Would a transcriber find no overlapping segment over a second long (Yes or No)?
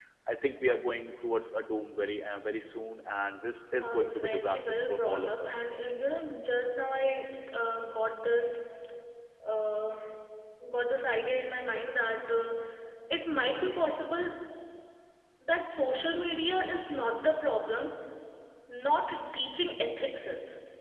No